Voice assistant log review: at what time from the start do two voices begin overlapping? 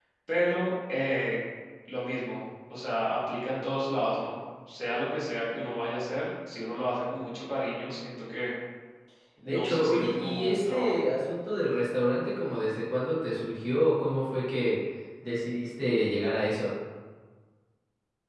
9 s

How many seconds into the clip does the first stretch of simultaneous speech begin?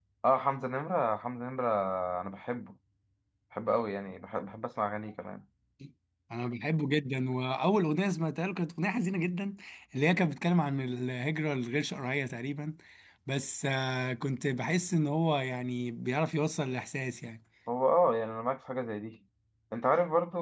none

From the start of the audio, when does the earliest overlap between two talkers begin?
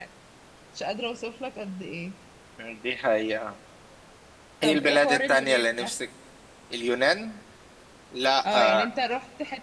5 s

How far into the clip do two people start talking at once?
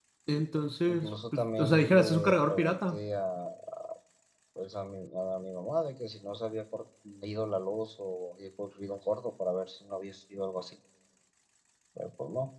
1 s

